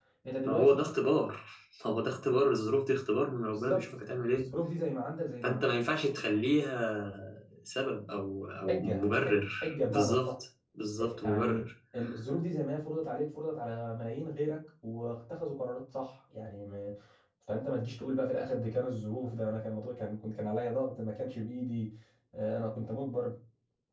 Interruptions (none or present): present